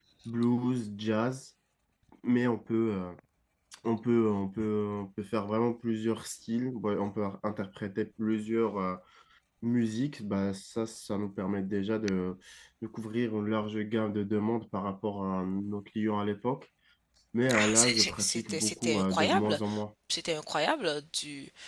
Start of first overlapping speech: 17.5 s

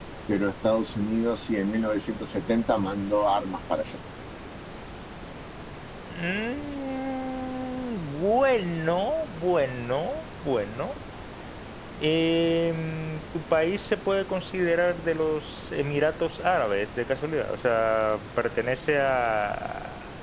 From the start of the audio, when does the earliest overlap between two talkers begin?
none

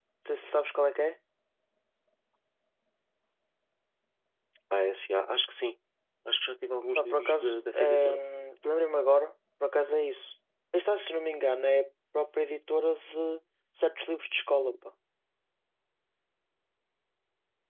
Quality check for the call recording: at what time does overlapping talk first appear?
7.0 s

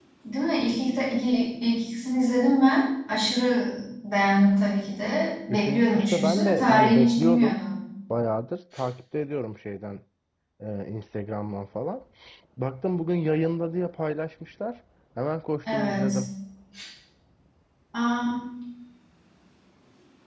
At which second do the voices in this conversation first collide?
5.5 s

